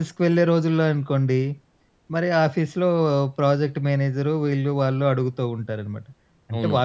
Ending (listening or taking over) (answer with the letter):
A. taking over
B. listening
B